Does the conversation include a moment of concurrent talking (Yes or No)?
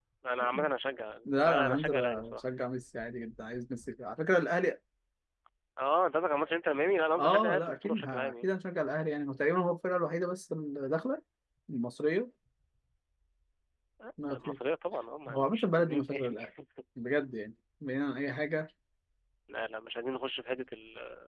Yes